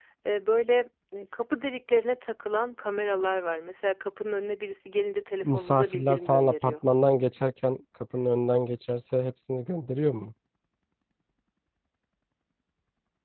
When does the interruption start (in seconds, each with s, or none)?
5.4 s